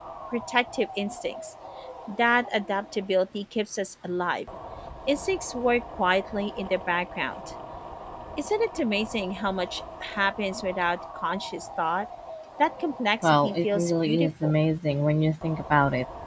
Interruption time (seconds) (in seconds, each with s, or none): 13.2 s